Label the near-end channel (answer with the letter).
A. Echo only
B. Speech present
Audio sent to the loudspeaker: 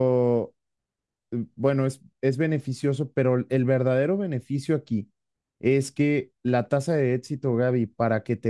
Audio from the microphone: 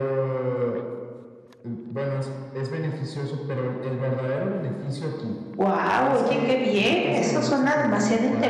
B